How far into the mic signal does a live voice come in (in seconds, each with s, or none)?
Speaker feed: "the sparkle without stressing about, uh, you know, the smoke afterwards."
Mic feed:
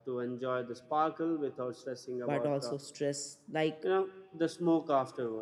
2.2 s